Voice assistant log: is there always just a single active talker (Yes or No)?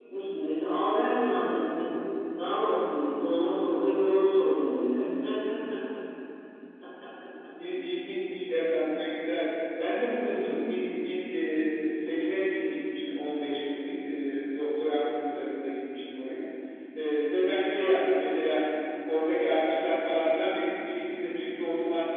Yes